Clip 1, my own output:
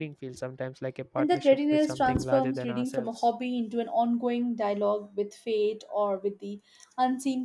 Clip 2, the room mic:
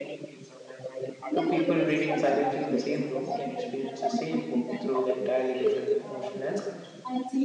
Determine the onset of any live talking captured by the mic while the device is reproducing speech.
1.3 s

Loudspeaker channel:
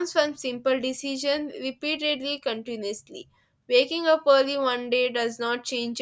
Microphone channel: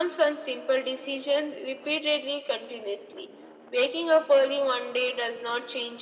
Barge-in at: none

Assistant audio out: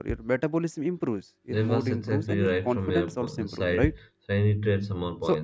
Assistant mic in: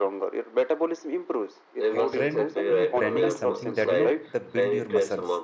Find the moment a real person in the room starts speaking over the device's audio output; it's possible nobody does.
1.9 s

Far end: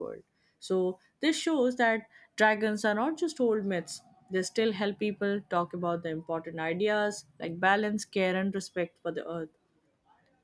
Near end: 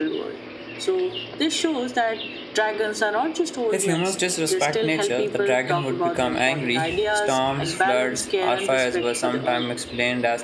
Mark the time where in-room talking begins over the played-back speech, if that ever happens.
3.7 s

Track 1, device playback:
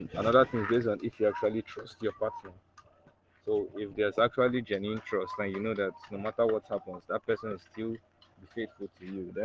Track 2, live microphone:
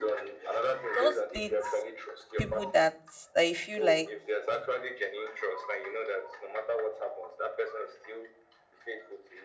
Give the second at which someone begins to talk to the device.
0.9 s

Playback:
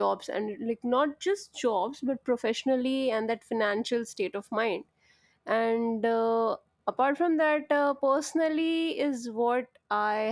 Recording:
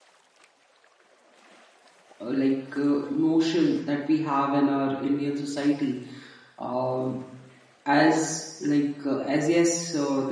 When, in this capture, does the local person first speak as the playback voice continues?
2.2 s

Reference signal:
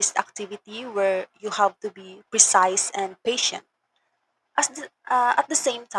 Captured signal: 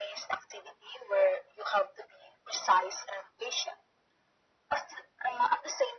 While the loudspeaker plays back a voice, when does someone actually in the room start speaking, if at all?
none

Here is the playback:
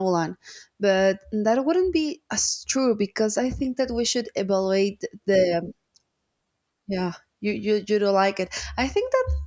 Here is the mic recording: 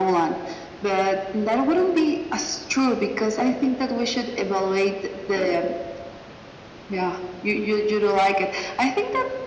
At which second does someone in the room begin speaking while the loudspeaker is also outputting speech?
none

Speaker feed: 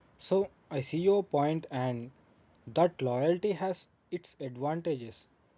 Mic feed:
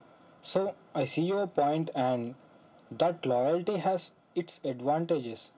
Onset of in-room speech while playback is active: none

